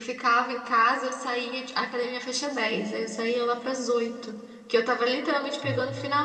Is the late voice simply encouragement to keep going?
Yes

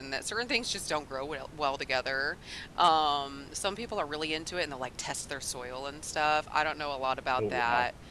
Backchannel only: Yes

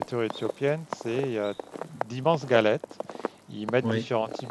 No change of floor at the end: Yes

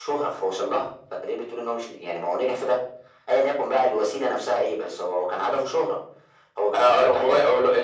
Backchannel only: No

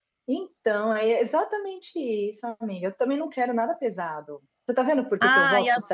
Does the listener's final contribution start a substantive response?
Yes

